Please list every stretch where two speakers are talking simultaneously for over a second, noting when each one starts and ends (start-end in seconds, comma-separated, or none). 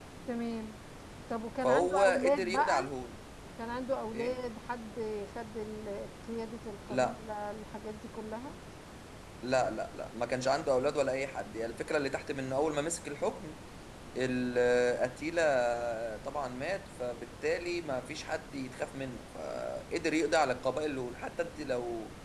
1.6-2.9